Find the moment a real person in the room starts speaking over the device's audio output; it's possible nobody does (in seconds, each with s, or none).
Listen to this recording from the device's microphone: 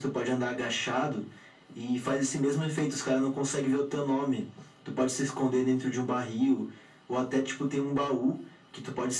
none